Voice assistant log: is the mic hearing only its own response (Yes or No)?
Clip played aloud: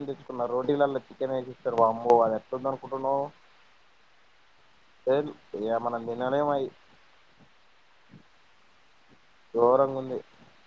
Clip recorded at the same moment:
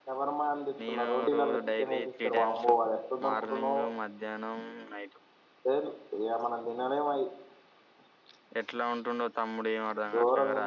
No